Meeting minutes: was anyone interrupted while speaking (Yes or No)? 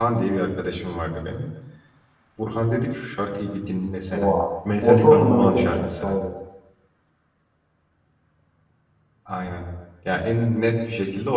Yes